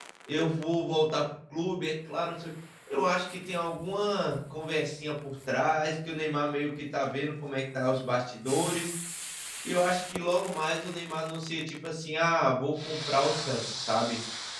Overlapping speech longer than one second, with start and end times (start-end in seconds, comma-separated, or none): none